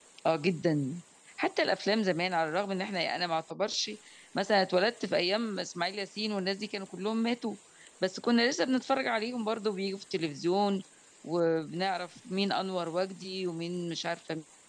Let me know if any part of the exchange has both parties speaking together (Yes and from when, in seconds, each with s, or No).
No